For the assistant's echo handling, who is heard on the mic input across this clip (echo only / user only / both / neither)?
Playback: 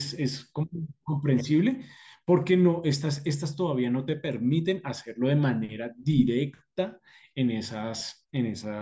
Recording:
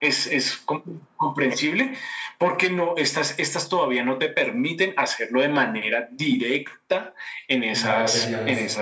both